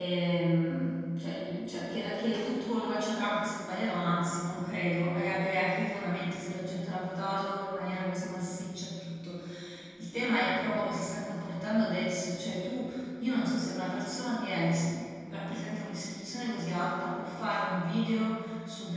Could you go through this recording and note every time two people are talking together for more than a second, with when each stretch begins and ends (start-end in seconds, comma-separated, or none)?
none